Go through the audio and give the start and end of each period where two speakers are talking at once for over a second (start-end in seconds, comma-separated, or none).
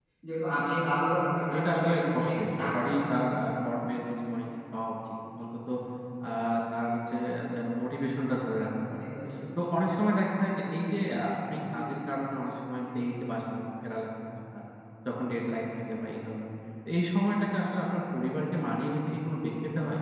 1.5-3.3